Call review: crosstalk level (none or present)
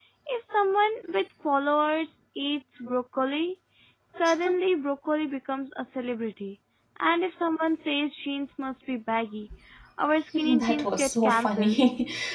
present